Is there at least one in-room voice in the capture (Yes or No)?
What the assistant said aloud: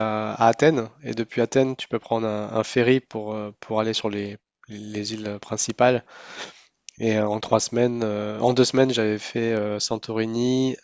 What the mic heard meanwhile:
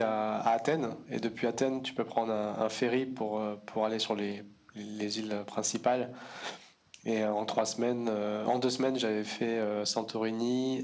No